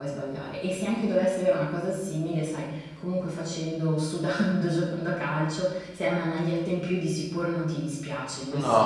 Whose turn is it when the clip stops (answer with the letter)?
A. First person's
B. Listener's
B